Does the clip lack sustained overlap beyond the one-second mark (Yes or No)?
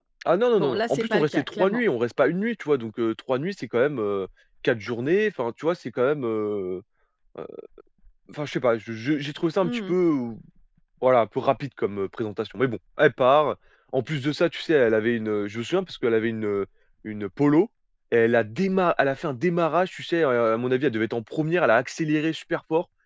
No